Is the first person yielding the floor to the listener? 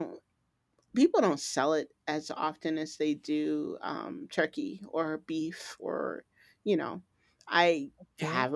No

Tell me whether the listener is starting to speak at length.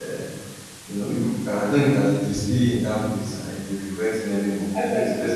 Yes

